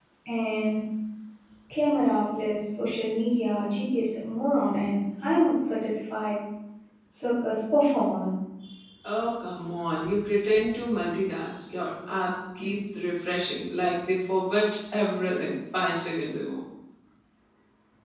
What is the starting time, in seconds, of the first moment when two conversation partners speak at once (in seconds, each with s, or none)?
none